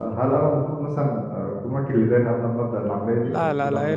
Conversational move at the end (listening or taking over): taking over